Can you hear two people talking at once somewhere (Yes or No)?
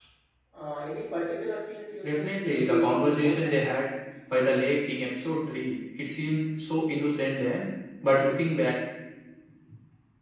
Yes